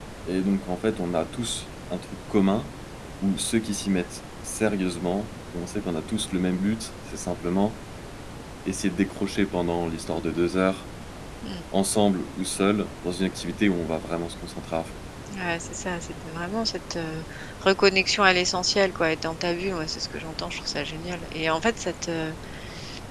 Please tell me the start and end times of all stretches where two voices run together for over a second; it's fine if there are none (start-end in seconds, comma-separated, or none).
none